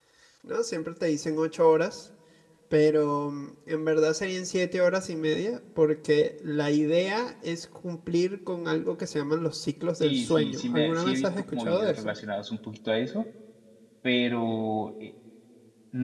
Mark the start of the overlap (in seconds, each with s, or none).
10.0 s